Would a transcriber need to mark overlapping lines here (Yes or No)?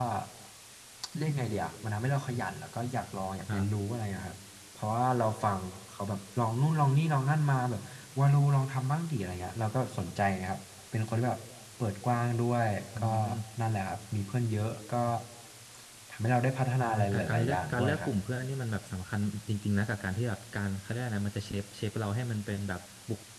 Yes